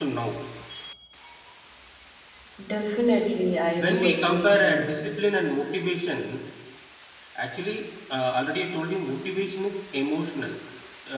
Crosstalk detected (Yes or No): Yes